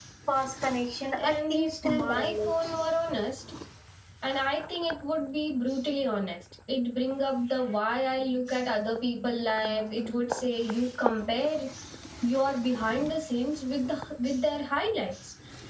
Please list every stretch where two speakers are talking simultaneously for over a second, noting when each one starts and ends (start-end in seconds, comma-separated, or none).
1.3-2.5